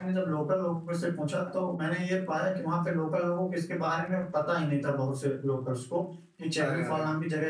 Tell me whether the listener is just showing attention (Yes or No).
Yes